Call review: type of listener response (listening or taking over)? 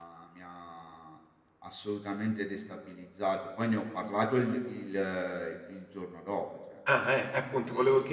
taking over